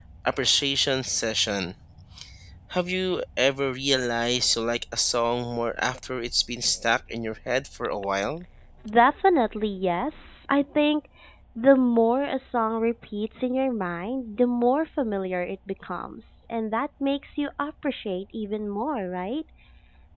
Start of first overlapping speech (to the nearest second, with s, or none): none